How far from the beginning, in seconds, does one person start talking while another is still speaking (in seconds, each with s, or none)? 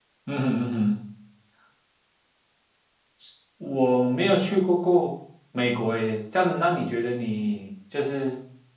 none